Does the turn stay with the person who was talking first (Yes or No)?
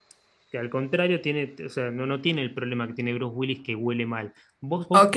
No